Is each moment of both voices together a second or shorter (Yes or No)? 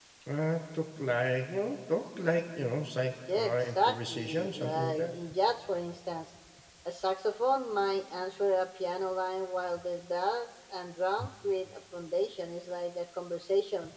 No